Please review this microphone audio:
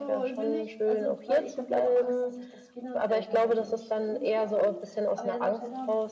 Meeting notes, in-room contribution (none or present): present